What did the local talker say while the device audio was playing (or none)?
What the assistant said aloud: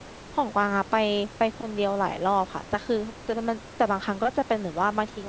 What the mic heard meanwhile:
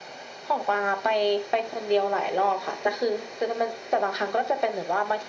none